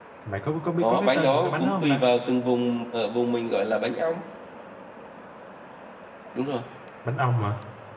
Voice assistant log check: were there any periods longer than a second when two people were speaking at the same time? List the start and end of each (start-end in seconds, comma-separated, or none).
0.8-2.0